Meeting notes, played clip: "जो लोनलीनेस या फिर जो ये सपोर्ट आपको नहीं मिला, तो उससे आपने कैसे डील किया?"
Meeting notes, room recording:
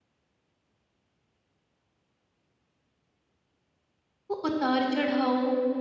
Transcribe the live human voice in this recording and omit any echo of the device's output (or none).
वो उतार चढ़ाव